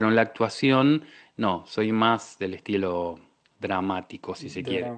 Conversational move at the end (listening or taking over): taking over